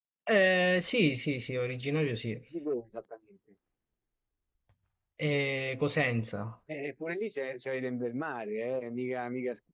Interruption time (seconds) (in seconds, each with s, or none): none